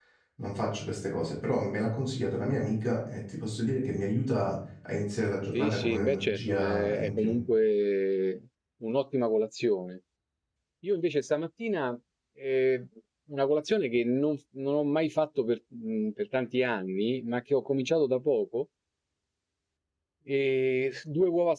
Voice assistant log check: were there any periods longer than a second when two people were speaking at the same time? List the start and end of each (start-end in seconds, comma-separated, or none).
5.5-7.3